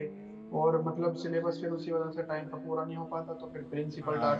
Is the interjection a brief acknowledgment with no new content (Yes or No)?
No